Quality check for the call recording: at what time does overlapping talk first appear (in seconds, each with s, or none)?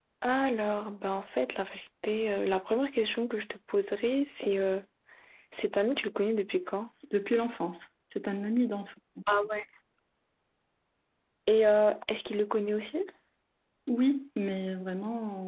none